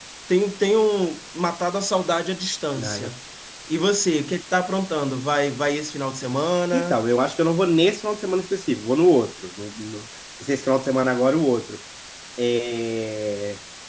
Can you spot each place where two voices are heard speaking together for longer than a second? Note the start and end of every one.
none

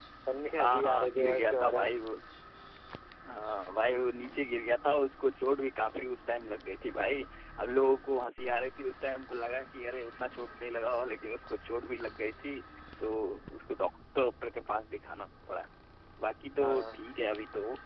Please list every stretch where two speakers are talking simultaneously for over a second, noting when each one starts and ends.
0.6-1.9

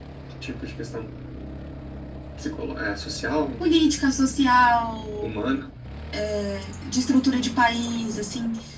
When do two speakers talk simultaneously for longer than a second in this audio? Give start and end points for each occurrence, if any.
none

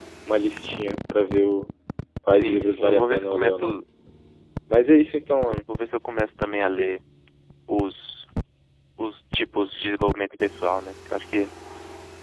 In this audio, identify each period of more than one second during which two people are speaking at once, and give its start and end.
2.4-3.6

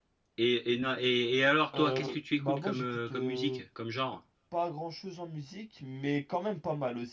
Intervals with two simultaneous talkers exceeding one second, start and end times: 1.8-3.6

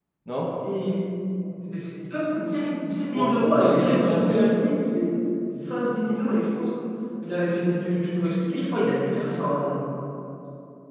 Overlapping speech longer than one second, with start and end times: 3.1-4.4

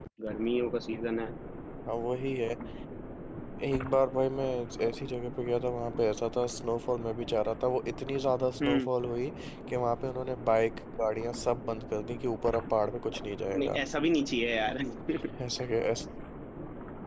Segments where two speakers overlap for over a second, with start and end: none

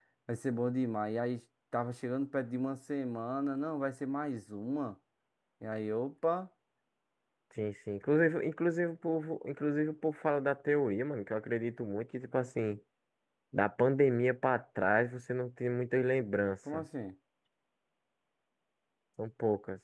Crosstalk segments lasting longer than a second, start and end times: none

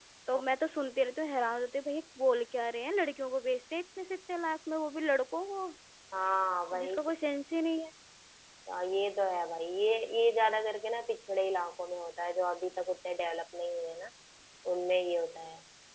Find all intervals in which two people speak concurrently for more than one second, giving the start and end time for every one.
none

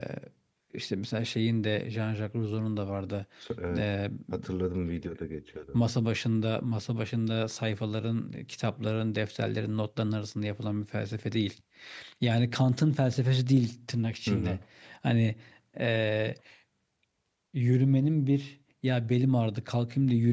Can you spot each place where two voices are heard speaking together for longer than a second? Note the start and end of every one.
none

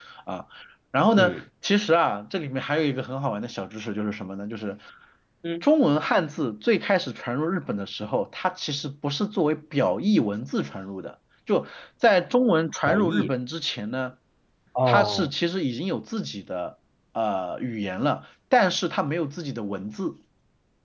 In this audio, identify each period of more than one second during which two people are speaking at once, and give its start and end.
none

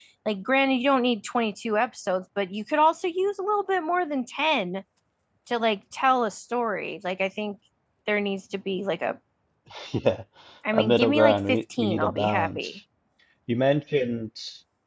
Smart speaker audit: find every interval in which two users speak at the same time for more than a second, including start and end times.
10.7-12.7

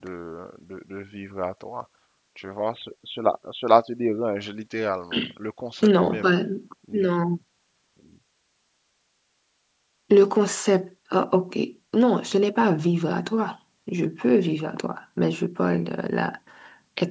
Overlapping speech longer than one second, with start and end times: none

